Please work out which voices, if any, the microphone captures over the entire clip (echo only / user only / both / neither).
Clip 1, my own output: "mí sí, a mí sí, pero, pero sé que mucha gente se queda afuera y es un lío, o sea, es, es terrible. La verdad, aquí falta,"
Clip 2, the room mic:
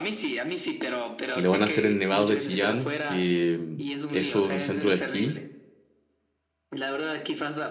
both